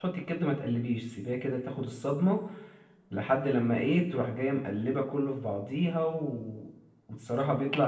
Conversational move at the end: listening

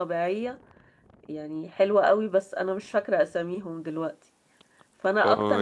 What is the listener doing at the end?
taking over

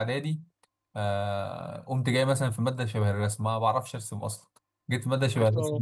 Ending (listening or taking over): listening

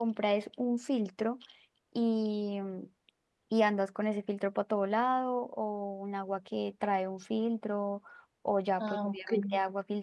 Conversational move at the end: listening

